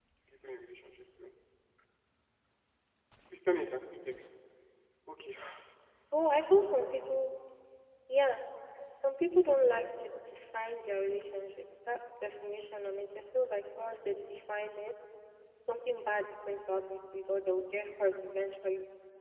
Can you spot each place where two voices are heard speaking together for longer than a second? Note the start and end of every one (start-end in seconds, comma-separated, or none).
none